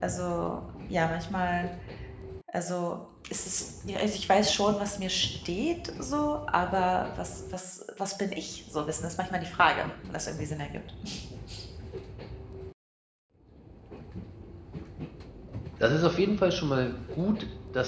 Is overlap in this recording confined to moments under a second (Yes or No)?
Yes